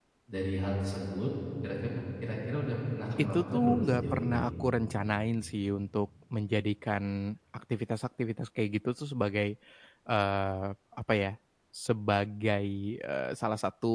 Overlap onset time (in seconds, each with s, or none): 3.2 s